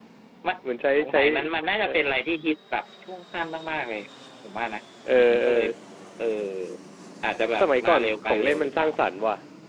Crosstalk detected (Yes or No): Yes